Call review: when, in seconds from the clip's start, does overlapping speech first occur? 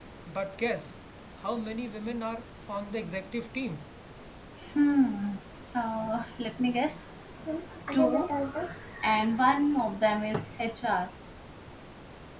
none

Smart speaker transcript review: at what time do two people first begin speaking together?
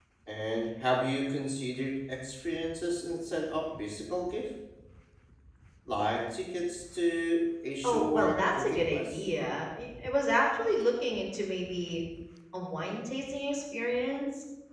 7.8 s

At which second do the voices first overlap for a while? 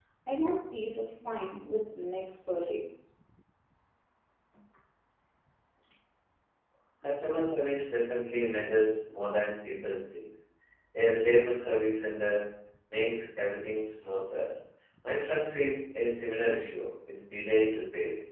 none

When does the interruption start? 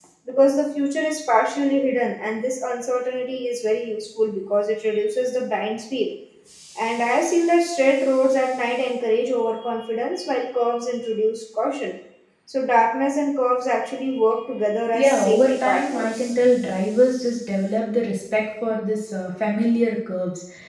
14.9 s

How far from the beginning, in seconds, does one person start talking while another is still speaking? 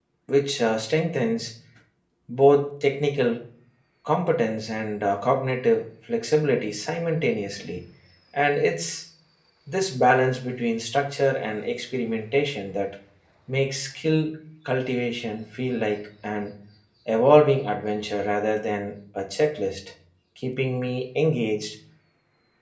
none

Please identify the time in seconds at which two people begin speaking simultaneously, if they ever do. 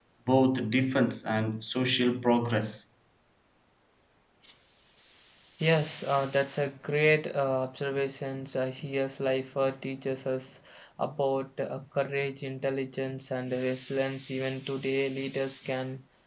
none

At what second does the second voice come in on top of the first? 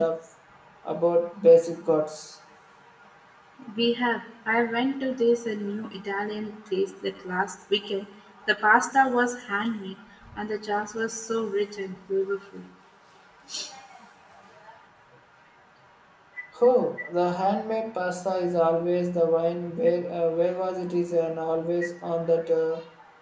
none

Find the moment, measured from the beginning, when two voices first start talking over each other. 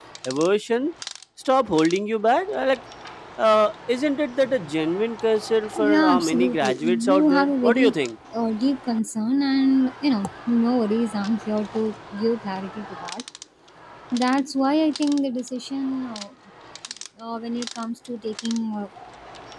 5.7 s

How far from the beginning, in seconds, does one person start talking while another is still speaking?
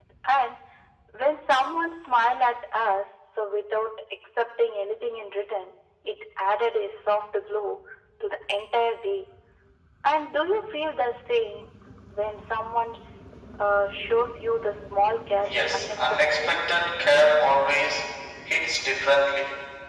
15.4 s

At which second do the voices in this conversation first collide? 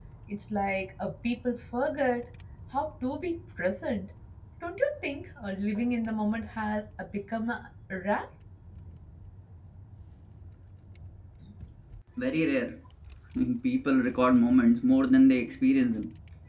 none

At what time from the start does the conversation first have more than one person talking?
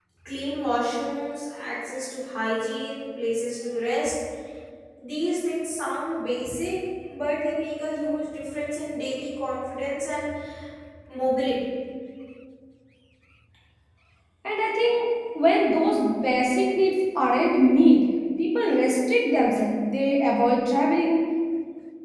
none

